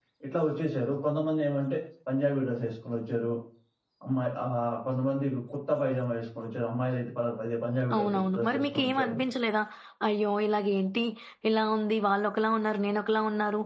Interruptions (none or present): present